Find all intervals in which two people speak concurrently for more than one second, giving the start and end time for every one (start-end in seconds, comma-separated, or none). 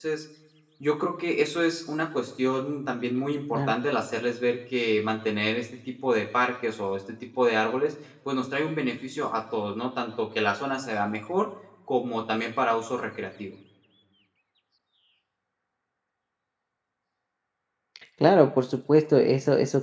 none